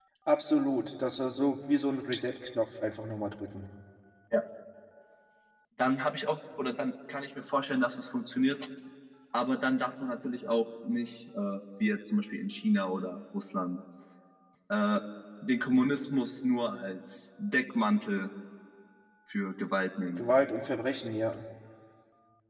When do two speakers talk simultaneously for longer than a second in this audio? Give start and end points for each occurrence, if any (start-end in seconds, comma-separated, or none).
none